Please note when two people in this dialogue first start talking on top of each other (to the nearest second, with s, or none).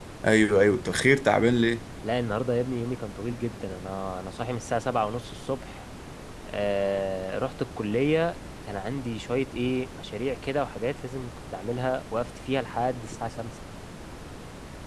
none